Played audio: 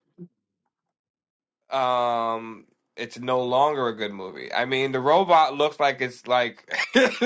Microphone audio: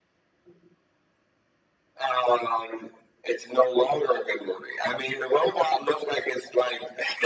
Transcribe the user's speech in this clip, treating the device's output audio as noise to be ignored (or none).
none